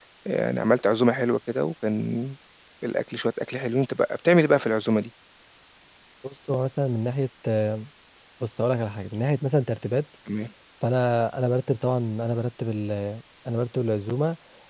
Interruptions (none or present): none